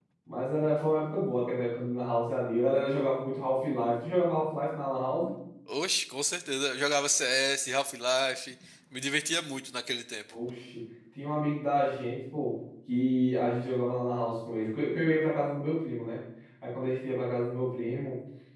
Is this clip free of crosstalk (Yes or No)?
Yes